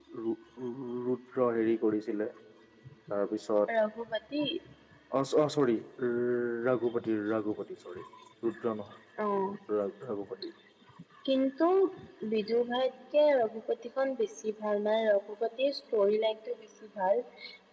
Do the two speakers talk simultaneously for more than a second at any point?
No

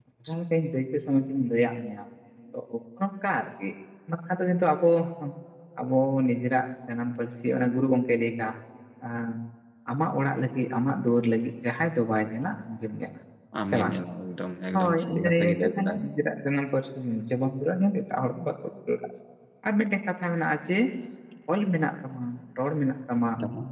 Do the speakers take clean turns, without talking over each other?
No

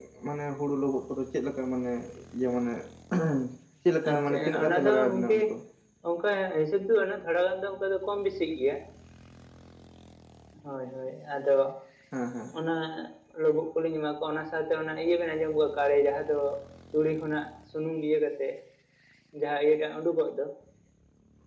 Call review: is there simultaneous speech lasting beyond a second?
Yes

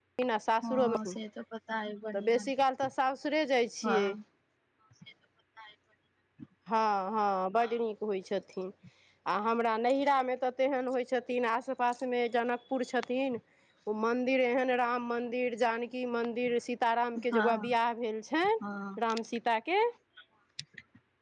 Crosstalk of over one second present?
No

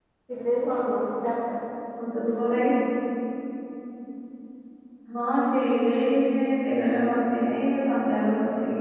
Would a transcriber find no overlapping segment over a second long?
Yes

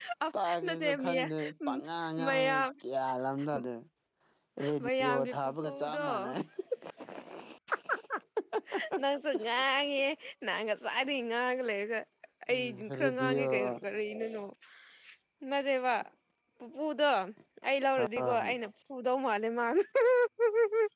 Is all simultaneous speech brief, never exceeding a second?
No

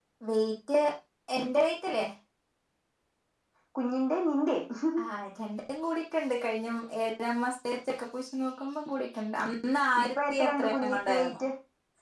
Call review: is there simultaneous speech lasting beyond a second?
Yes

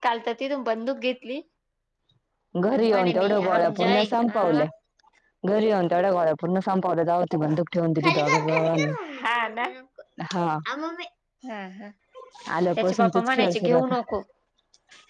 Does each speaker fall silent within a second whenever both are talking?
No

